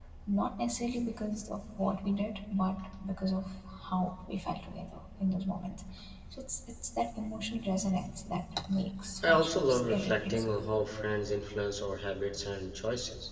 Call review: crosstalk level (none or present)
present